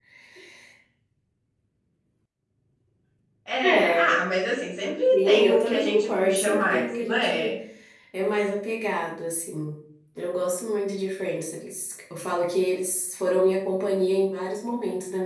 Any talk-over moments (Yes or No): Yes